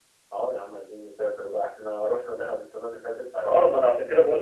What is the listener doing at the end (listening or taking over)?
taking over